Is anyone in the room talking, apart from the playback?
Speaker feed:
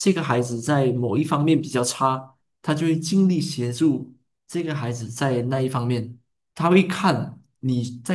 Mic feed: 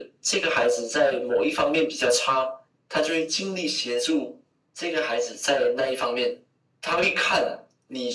No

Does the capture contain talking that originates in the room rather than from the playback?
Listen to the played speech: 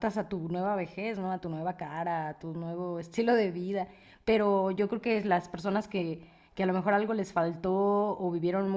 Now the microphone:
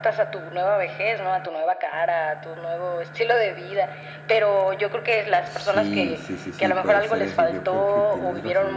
Yes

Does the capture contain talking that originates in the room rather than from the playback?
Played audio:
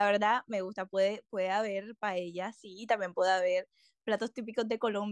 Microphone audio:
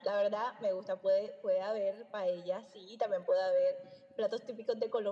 No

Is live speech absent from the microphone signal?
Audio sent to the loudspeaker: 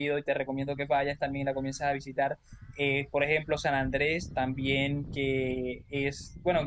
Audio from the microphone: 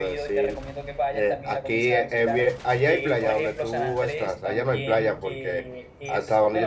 No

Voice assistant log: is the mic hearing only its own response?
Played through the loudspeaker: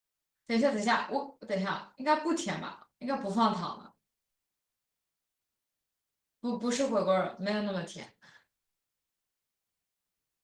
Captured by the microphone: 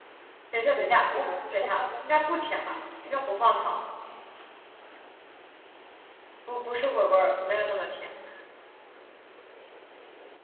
No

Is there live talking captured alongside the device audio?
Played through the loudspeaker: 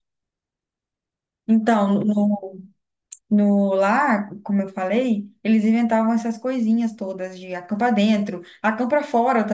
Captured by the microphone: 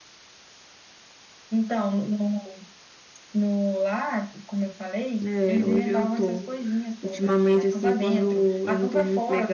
Yes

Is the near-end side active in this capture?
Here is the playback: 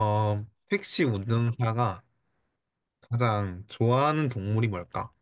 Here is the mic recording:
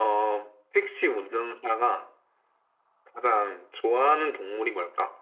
No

